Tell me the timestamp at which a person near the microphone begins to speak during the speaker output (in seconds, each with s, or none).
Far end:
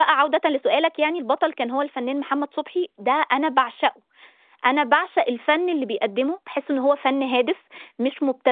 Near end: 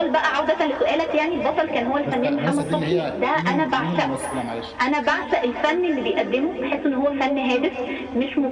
2.0 s